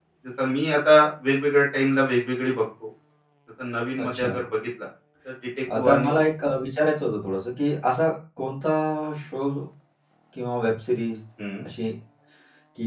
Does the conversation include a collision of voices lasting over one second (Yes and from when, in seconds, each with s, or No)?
No